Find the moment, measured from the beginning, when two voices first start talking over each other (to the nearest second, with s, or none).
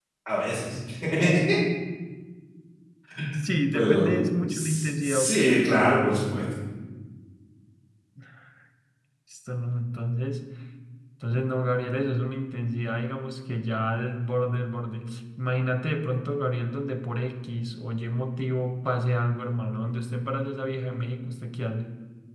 4 s